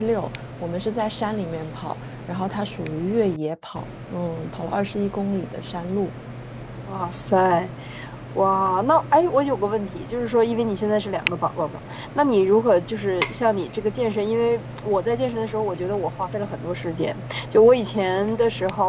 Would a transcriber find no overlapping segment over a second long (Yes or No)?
Yes